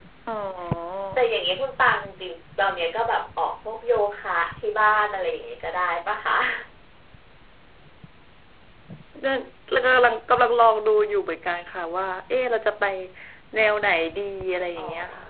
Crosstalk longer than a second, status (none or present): none